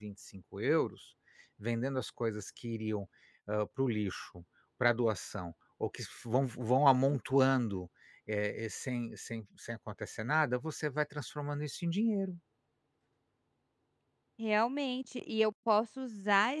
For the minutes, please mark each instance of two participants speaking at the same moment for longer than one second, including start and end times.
none

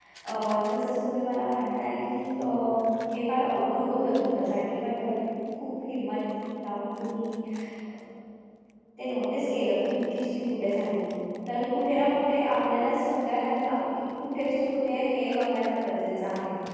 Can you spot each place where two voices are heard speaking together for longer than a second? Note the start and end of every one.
none

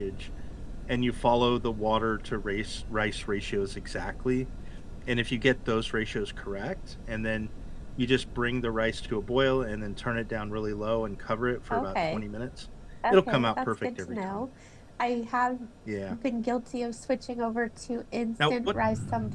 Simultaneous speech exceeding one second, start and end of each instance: 13.1-14.4

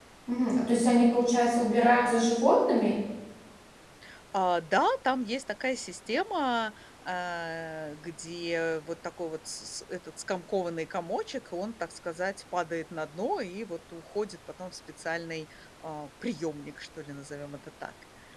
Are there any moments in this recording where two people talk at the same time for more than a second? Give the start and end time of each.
none

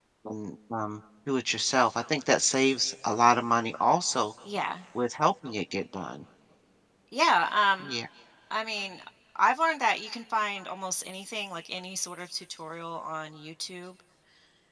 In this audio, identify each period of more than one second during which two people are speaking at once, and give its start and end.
none

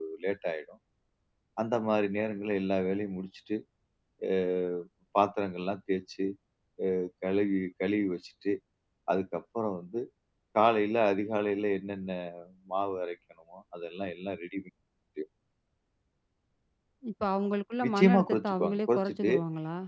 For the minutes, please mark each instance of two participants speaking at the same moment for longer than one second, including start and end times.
17.8-19.3

